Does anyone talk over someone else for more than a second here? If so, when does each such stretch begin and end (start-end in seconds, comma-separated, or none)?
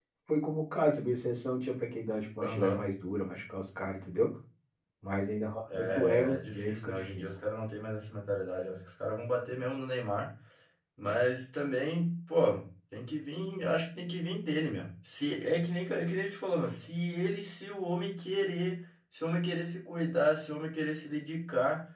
5.7-7.2